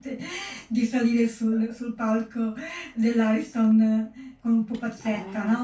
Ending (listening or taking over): listening